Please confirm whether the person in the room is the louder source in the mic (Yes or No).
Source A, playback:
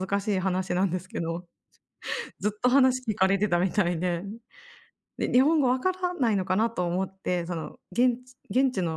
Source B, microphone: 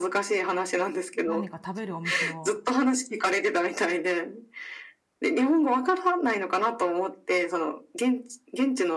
No